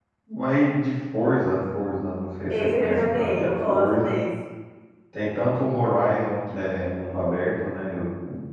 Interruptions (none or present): present